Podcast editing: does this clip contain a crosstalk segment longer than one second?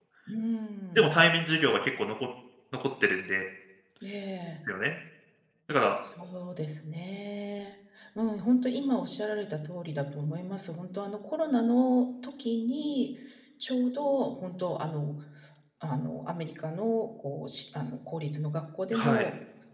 No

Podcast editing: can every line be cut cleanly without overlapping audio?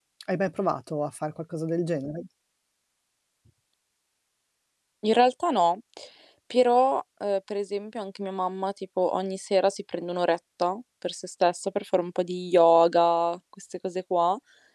Yes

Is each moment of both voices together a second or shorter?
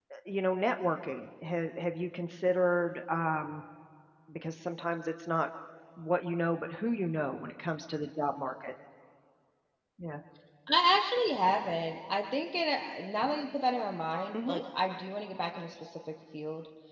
Yes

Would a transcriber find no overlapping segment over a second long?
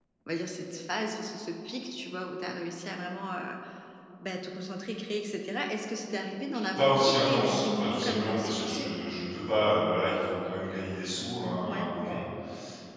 No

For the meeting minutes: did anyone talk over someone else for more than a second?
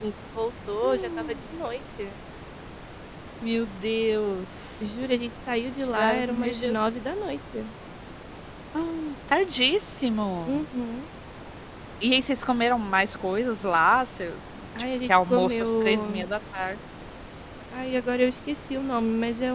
Yes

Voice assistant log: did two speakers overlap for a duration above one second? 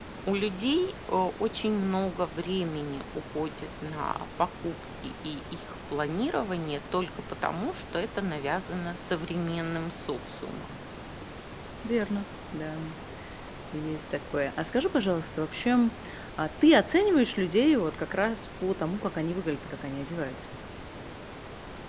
No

